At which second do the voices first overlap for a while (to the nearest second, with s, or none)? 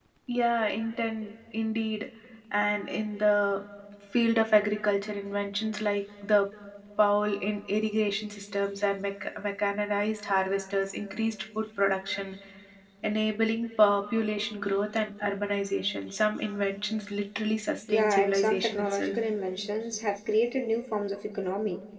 18 s